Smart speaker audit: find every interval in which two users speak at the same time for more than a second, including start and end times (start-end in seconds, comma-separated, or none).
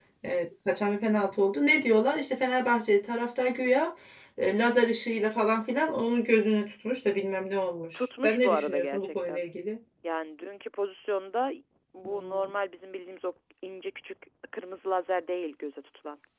7.9-9.4